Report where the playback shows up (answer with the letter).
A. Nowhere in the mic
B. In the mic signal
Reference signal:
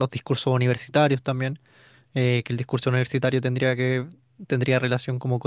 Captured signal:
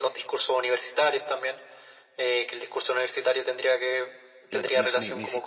B